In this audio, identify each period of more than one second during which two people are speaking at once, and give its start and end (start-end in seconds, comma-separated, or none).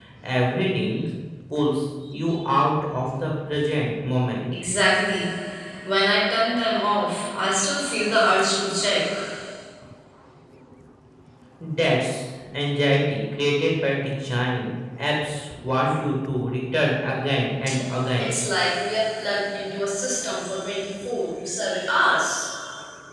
none